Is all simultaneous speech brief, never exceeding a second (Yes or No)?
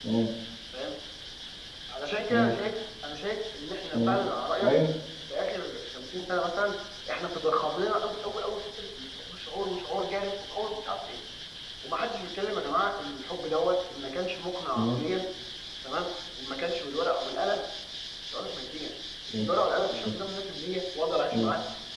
Yes